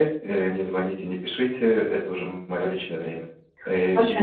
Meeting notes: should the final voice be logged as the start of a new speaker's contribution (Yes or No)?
No